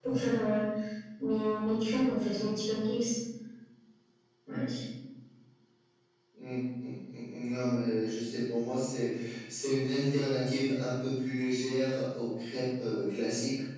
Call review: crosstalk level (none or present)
none